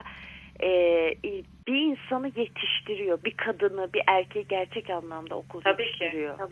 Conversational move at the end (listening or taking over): taking over